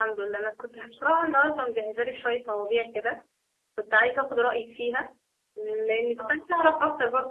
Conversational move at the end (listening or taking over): listening